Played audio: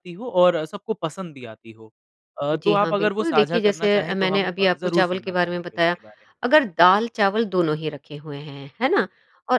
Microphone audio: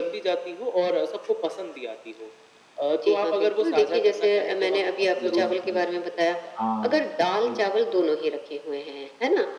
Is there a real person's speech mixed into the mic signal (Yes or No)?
Yes